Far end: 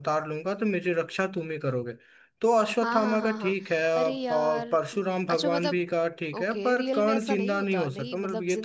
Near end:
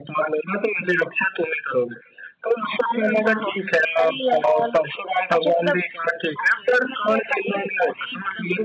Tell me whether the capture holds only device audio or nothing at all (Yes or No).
Yes